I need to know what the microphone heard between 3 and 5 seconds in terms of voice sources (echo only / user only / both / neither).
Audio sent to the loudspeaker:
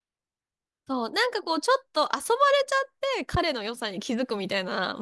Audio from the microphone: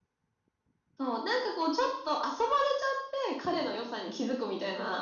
echo only